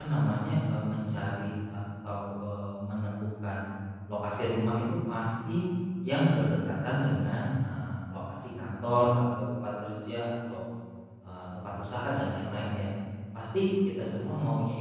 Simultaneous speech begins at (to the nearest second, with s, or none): none